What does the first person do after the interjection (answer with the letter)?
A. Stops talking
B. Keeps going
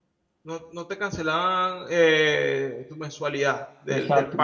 A